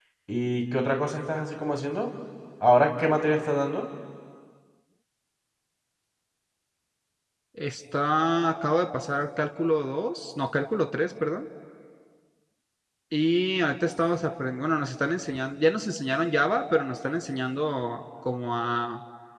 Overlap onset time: none

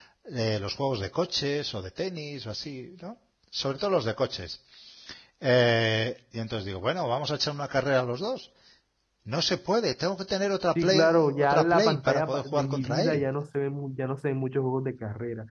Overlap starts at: 11 s

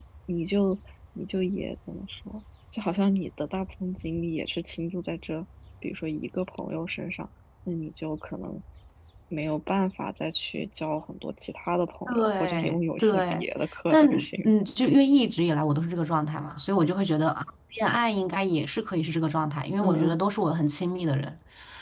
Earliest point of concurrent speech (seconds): 12 s

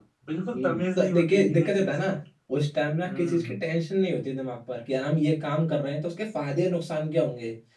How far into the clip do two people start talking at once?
1 s

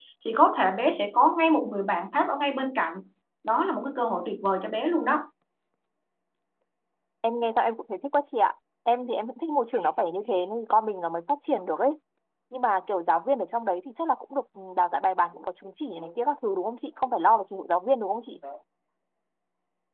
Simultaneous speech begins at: none

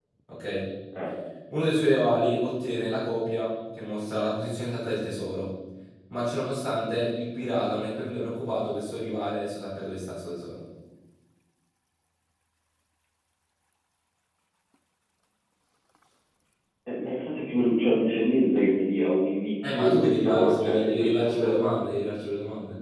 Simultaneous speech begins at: 20 s

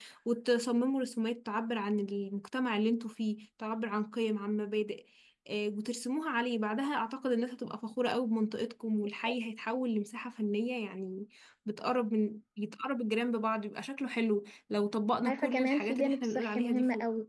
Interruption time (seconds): 15 s

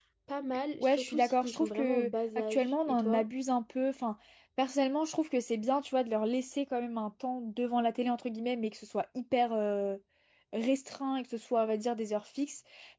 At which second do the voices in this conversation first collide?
1 s

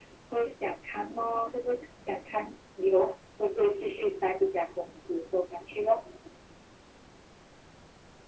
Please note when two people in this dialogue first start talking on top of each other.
none

